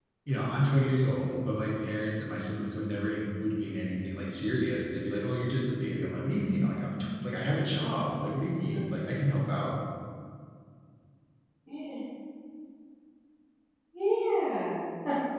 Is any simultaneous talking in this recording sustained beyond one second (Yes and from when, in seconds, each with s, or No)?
No